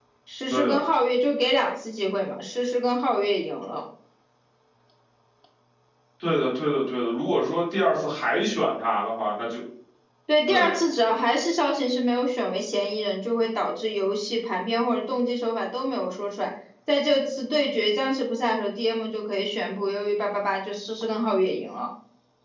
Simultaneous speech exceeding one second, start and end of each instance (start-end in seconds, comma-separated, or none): none